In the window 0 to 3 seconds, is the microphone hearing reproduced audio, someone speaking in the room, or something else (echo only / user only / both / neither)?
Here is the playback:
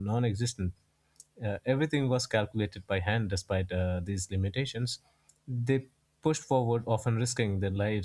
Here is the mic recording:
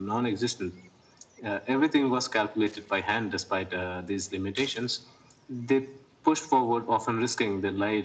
echo only